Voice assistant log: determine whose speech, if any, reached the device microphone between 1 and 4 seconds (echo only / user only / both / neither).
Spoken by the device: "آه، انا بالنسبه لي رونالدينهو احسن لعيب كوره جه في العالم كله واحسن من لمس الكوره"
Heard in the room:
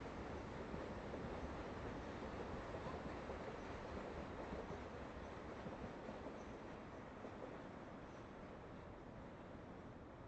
neither